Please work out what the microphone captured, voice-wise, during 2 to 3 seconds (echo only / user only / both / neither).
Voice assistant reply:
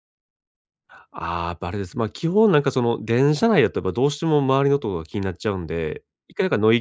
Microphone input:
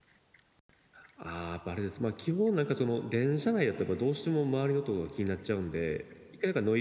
echo only